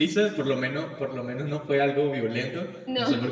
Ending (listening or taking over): listening